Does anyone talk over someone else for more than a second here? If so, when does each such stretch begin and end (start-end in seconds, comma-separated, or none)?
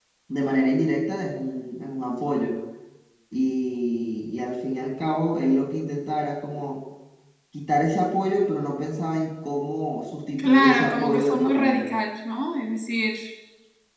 10.4-11.9